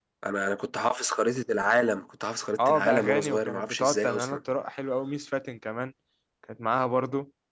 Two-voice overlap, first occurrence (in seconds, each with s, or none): 2.6 s